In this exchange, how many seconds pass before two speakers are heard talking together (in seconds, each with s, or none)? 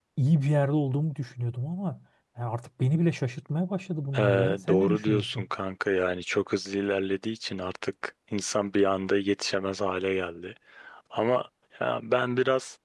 4.1 s